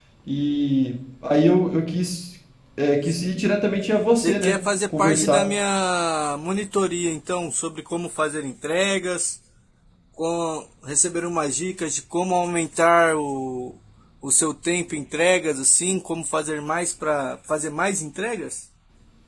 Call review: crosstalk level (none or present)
present